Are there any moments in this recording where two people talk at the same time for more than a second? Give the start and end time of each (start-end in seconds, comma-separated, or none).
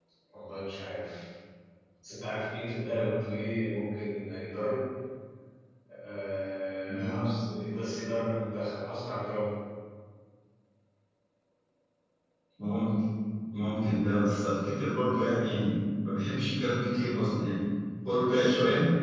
none